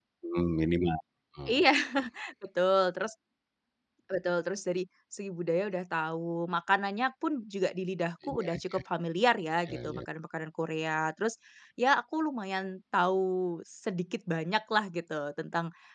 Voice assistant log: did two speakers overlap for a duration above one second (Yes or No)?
No